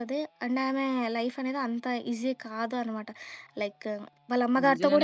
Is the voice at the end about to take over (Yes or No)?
Yes